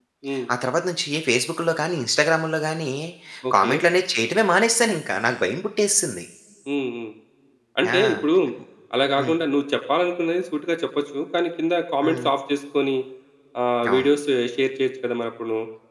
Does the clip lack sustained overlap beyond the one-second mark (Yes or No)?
Yes